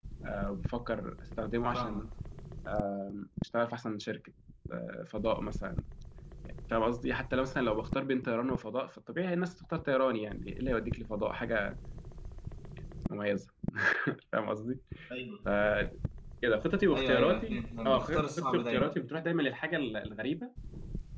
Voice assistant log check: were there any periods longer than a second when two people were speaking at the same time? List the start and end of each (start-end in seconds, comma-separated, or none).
16.9-18.9